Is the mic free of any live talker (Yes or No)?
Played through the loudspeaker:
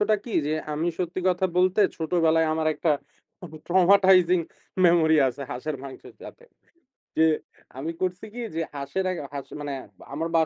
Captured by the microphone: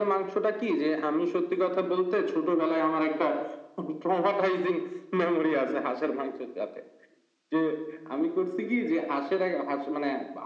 Yes